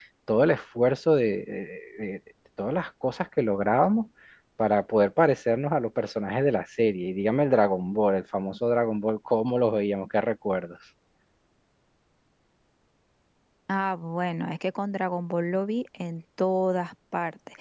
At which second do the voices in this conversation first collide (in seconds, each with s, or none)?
none